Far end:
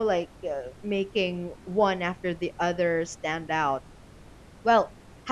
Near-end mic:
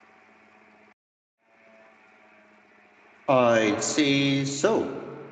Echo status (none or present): none